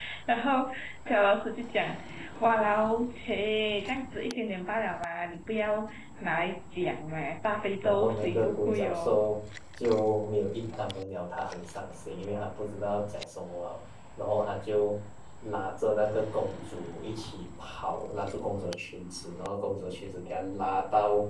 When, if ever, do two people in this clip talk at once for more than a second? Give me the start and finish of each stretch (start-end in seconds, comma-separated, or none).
7.8-9.2